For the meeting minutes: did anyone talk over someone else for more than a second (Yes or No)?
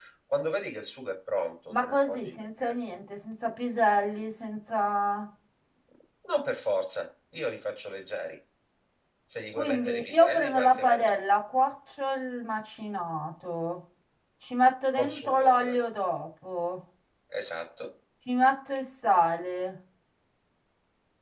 Yes